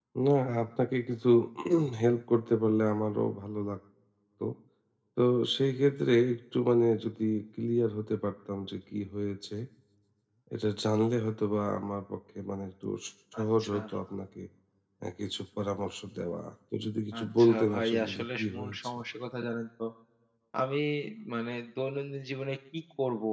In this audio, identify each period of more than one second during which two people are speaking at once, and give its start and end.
17.2-18.8

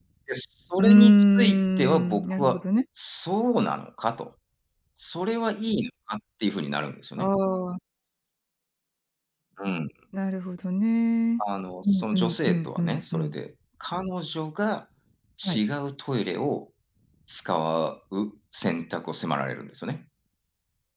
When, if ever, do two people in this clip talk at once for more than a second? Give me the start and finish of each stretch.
0.8-2.6, 11.8-13.3

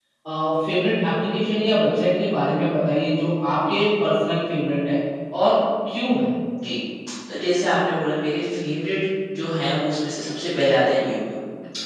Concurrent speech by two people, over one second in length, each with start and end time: none

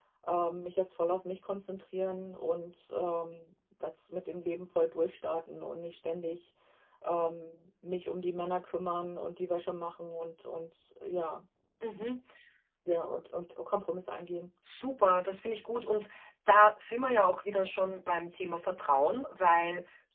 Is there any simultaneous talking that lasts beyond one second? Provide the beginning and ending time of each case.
none

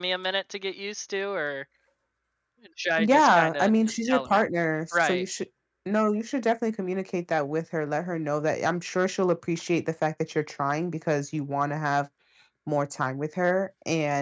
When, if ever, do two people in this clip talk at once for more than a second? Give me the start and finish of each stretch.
3.0-4.4

